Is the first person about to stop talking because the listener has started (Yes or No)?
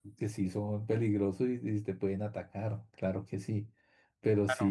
No